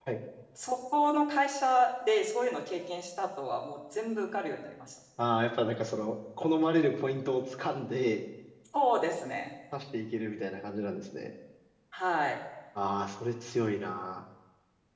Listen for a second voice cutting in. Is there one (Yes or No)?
No